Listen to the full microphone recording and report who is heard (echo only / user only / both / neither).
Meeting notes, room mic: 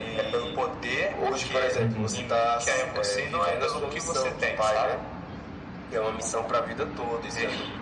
both